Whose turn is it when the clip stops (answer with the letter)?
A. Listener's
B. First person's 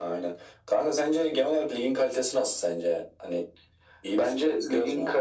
A